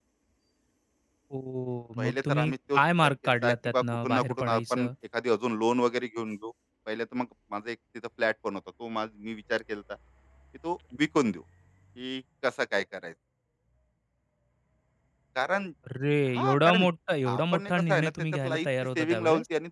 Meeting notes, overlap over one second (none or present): present